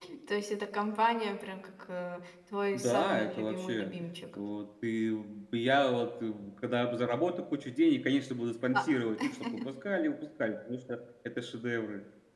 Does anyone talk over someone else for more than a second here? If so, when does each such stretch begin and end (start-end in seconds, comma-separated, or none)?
2.7-4.0